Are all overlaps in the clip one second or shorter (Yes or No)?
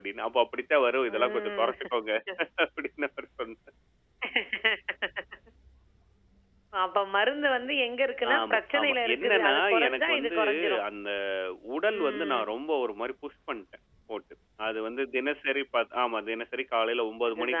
No